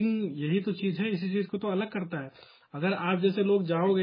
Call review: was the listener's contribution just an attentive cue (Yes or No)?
Yes